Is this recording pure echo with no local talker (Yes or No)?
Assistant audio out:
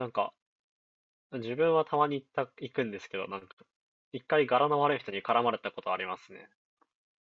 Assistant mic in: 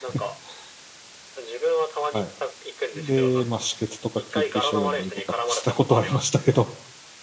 No